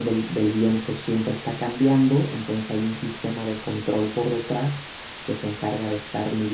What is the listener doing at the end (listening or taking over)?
listening